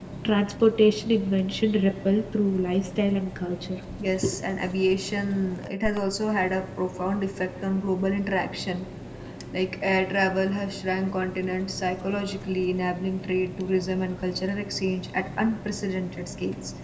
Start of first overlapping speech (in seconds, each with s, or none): none